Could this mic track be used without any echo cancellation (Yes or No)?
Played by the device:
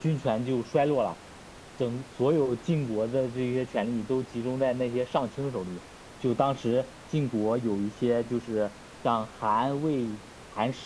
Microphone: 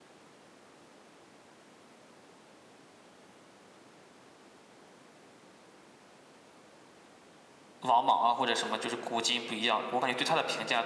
Yes